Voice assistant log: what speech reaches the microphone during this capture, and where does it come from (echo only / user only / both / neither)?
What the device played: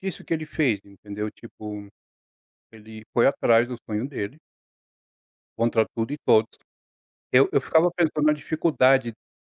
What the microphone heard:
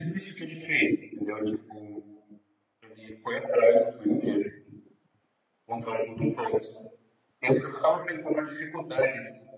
echo only